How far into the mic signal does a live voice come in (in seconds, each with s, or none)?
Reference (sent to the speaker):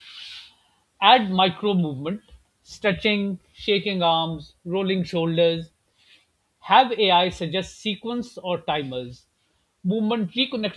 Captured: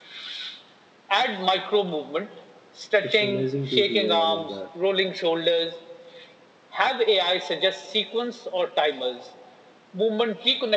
3.0 s